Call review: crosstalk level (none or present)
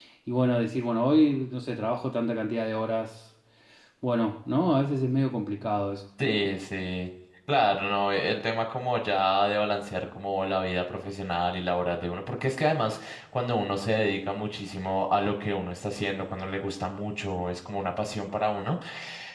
none